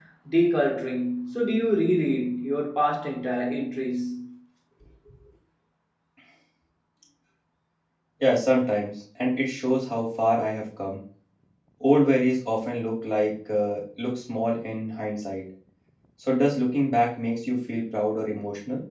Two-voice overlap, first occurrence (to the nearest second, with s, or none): none